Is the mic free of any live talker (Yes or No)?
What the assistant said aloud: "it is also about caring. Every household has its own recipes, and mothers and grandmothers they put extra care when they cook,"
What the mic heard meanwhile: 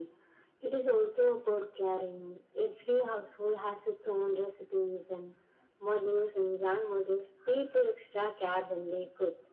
Yes